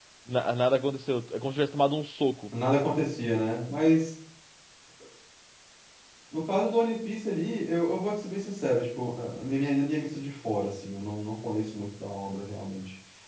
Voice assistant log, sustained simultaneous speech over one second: none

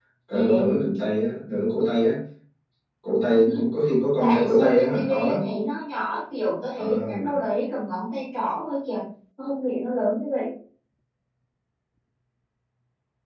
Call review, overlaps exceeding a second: present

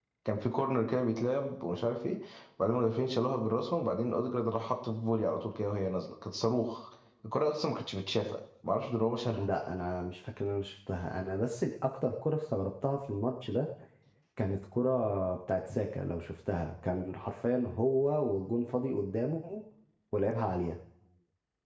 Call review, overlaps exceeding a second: none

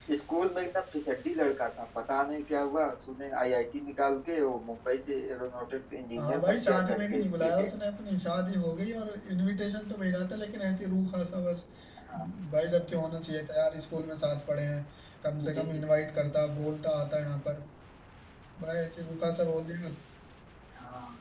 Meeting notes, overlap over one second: present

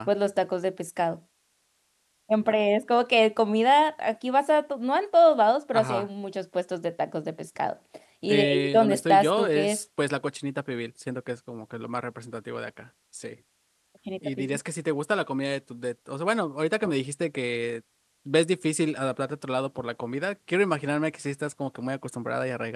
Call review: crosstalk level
present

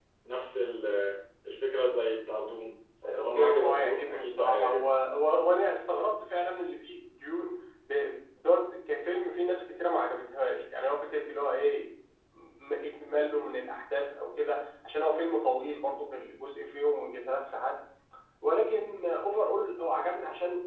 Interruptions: present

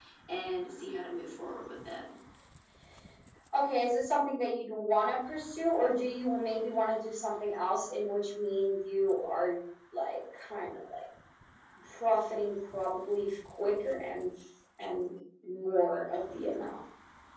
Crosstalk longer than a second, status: none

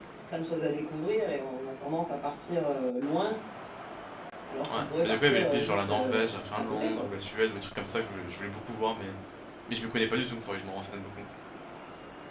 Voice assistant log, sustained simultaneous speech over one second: present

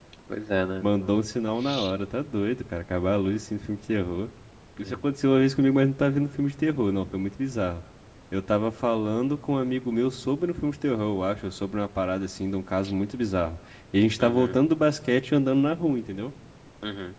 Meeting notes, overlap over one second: none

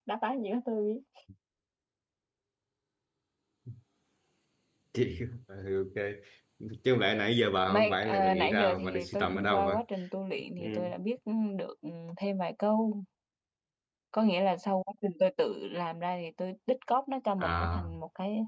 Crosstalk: present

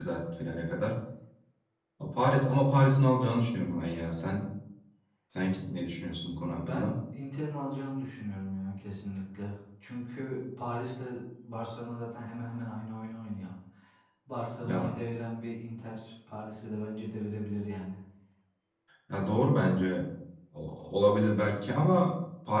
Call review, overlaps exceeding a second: none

